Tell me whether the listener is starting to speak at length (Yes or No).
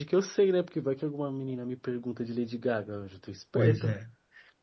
Yes